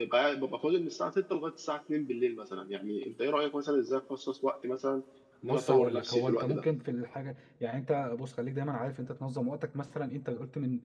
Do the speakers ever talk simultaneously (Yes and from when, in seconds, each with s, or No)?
Yes, from 5.4 s